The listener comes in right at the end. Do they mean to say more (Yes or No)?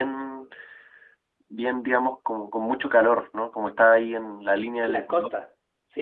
Yes